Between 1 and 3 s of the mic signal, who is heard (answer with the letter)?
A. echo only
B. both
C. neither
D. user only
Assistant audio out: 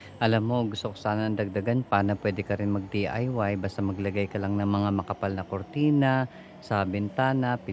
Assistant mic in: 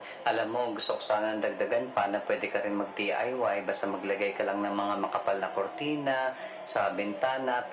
A